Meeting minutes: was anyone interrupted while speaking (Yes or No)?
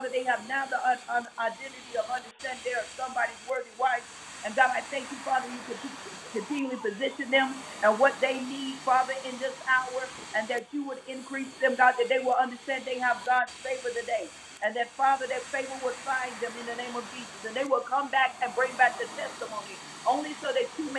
No